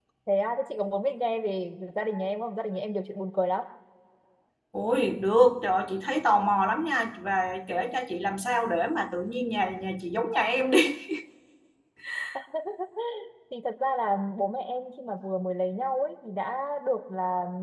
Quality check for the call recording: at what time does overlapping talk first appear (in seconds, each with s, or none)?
none